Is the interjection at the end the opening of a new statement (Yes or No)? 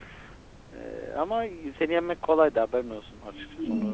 Yes